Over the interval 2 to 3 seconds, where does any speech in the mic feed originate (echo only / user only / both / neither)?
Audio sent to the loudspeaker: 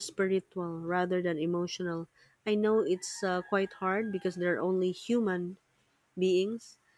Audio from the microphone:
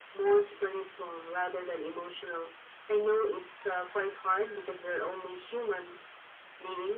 echo only